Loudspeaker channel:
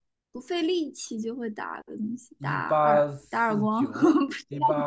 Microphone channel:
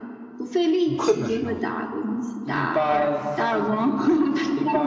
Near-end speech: present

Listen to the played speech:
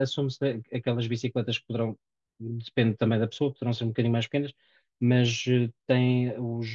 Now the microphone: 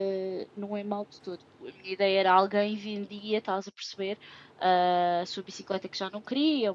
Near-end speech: present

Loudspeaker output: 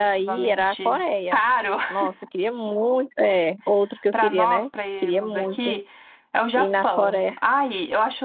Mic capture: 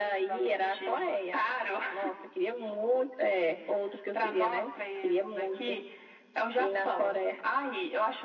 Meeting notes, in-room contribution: none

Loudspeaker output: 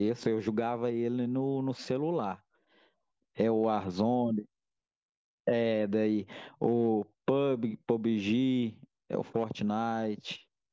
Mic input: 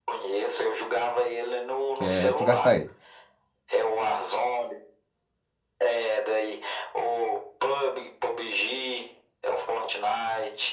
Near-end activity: present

